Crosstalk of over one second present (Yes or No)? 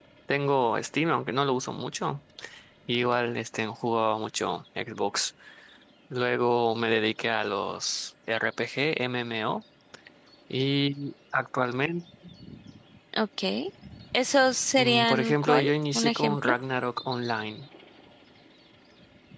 Yes